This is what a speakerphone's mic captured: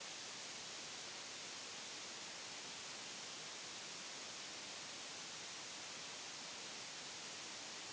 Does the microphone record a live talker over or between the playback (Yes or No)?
No